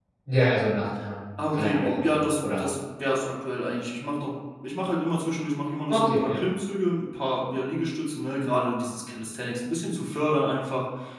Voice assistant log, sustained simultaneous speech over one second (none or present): present